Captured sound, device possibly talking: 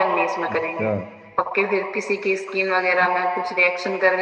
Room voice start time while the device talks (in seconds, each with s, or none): 0.5 s